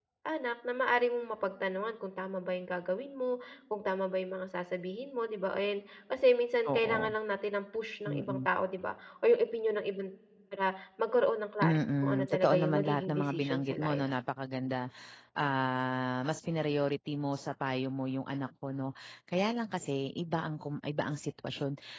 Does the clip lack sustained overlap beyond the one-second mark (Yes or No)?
No